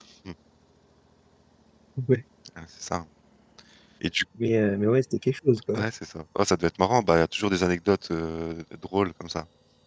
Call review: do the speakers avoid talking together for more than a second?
Yes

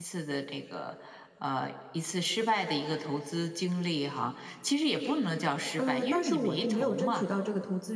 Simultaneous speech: Yes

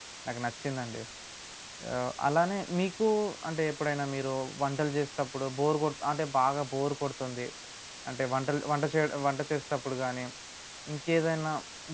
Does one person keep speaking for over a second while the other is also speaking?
No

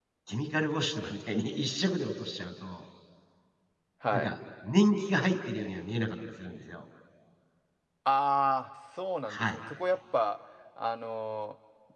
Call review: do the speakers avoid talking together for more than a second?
Yes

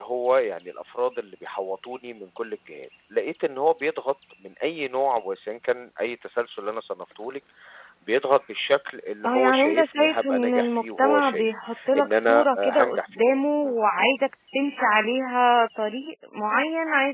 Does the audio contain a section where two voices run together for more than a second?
Yes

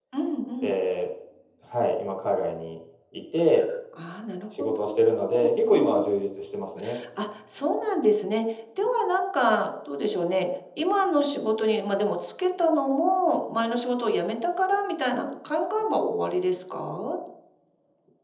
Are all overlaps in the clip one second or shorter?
Yes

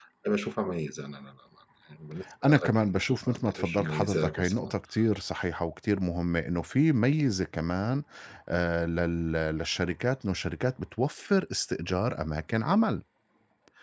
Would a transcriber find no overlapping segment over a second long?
No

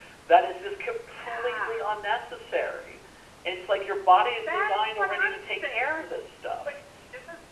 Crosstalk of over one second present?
Yes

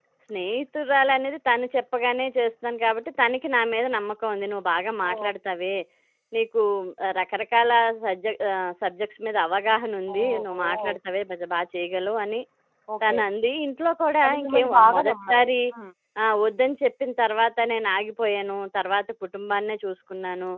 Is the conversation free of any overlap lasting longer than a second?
No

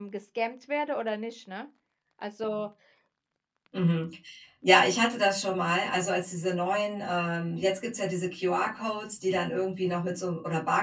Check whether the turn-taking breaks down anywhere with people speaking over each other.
No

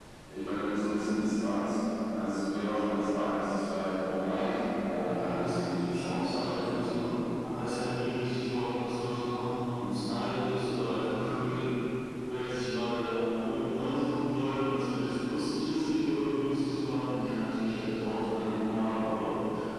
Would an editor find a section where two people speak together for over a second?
Yes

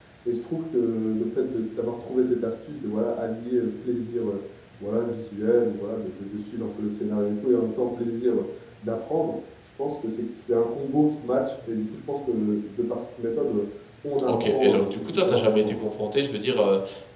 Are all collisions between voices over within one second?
No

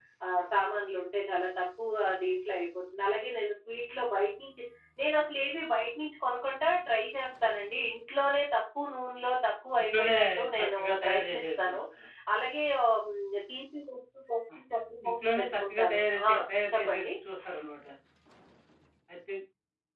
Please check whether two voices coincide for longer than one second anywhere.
Yes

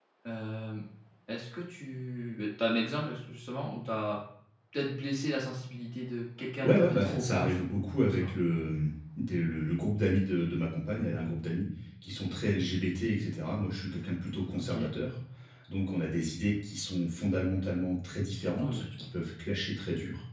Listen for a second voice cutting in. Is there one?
Yes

